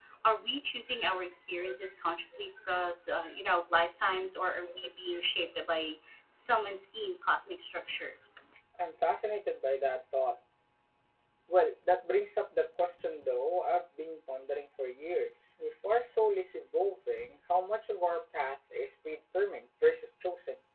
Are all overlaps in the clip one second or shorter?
Yes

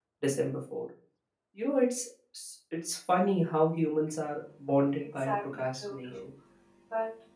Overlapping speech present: Yes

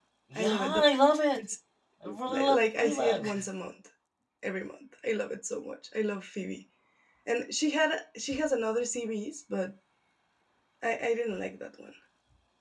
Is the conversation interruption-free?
No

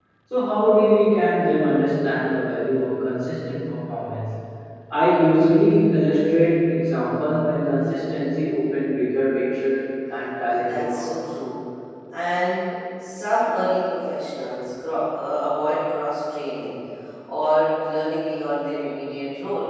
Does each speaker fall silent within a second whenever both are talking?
Yes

